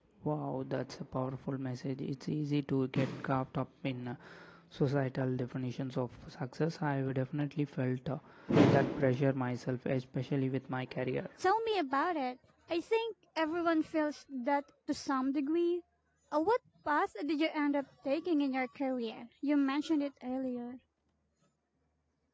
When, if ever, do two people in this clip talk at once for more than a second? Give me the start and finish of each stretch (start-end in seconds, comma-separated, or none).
none